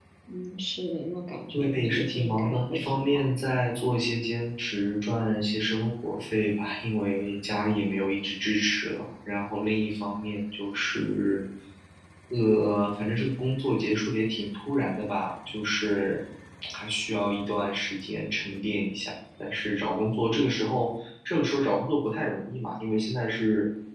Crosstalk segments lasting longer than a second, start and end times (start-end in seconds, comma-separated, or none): 1.5-3.4